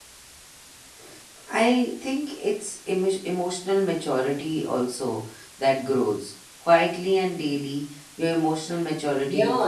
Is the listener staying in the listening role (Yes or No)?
No